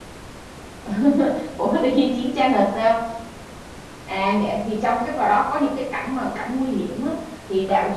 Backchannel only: Yes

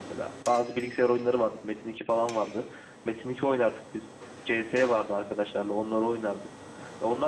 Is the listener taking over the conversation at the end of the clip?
No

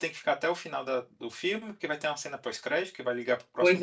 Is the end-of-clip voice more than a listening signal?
No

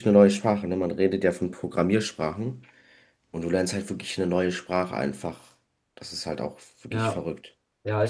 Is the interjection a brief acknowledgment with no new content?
No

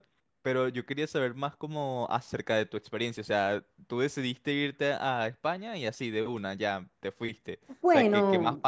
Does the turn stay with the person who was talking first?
Yes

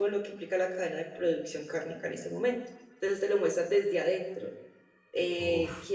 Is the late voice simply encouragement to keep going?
Yes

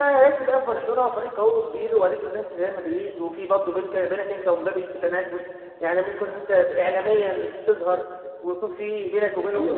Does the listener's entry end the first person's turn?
Yes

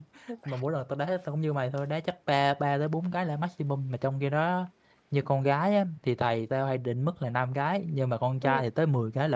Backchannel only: Yes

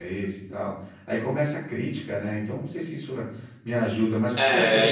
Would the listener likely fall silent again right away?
No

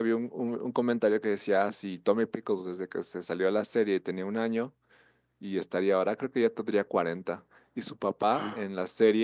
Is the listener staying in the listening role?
Yes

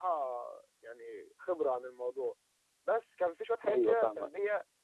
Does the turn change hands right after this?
No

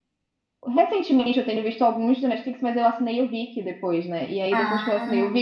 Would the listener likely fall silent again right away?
Yes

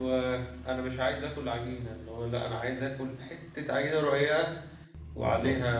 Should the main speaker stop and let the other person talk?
No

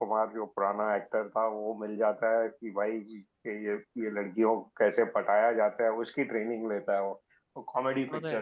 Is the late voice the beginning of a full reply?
No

